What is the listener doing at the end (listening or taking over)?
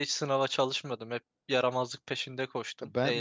taking over